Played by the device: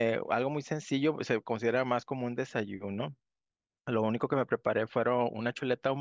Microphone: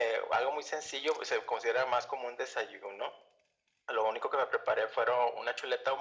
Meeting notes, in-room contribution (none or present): none